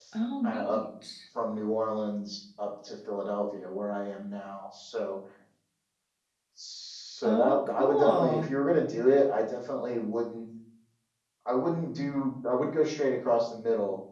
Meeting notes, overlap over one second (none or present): present